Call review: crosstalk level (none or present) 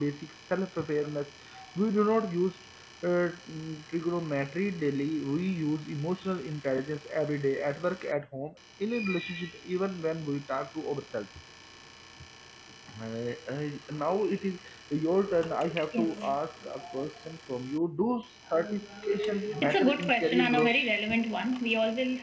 present